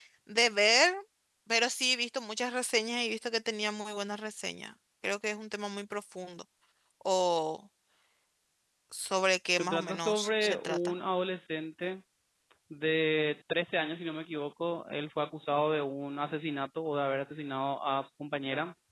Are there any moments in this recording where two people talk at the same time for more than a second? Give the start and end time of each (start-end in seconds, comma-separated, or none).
9.6-10.9